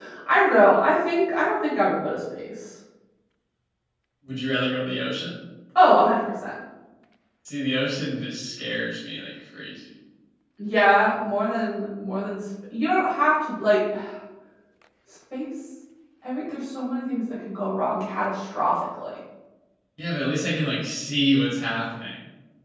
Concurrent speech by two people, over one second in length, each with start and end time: none

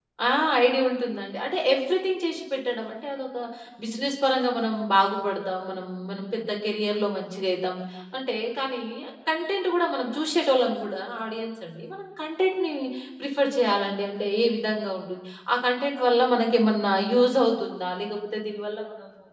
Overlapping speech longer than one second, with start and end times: none

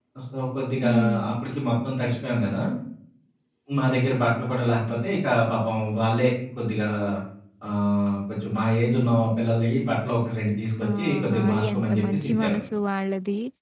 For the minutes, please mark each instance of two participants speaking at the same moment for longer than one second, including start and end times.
11.0-12.6

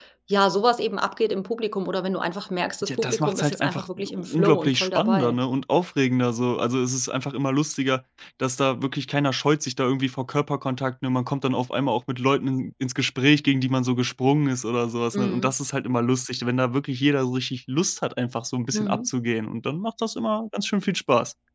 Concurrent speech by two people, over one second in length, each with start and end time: 2.9-5.4

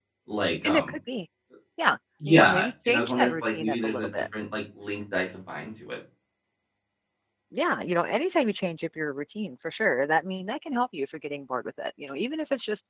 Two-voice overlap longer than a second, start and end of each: 2.3-4.1

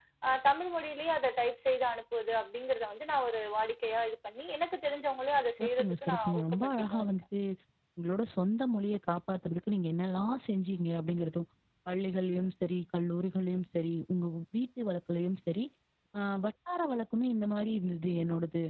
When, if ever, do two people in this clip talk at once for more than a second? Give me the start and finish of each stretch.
5.6-7.1

